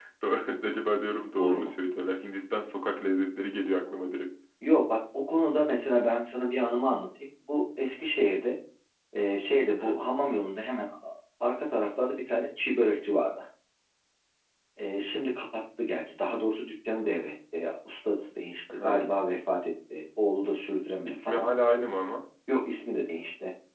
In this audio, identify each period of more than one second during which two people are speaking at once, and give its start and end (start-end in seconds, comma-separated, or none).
none